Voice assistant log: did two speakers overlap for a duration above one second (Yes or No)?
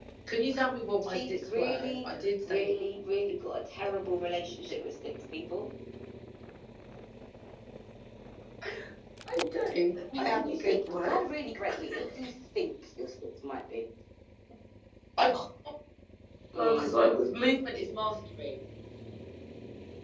Yes